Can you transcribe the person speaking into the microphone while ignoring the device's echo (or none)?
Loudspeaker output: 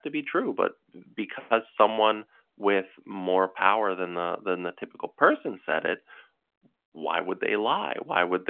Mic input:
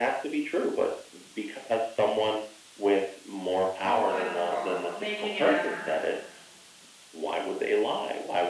quote unquote making an effort